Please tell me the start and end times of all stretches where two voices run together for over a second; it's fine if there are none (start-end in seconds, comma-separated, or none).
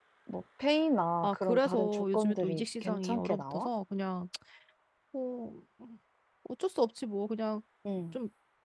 1.2-3.7